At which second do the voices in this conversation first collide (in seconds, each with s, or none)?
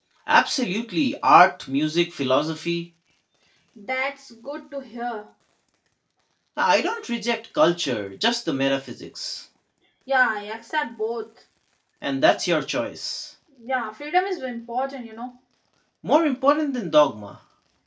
none